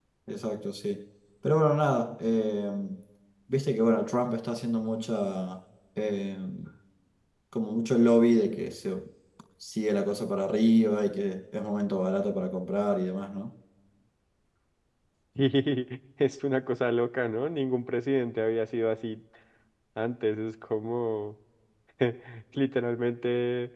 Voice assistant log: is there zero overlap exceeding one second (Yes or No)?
Yes